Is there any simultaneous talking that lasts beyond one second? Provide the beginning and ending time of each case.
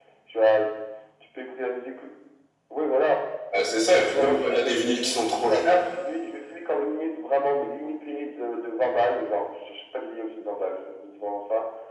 3.9-5.8

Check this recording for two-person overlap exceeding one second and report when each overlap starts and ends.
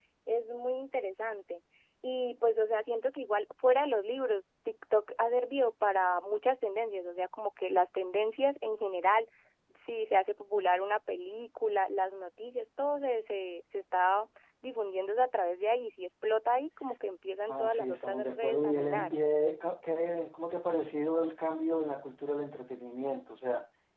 17.5-19.1

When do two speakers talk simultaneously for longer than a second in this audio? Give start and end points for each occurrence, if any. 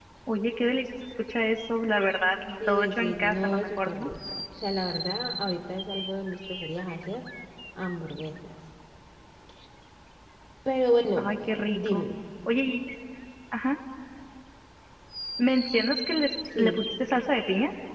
2.7-4.1

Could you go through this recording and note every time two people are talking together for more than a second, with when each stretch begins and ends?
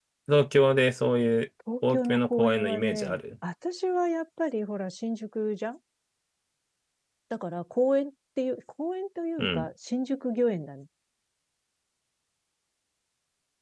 1.9-3.2

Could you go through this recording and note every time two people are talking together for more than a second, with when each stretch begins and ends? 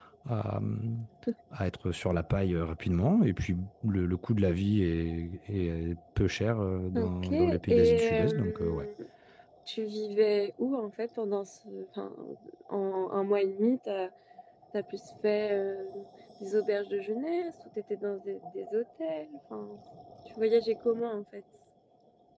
6.9-8.9

